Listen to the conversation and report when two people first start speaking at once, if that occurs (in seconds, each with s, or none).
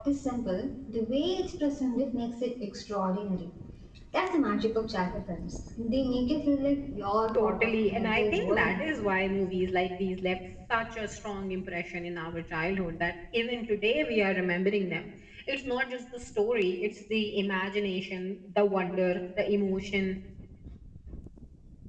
7.3 s